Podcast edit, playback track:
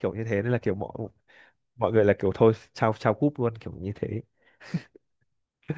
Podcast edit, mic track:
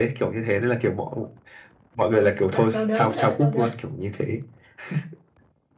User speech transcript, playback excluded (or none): ôi đau, đau đớn hả đau đớn